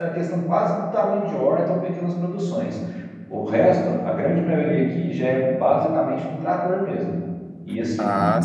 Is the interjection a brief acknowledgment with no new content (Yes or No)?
No